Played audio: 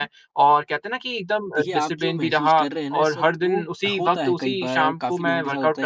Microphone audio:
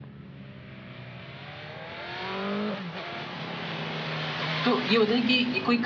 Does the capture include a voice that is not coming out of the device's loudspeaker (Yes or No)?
Yes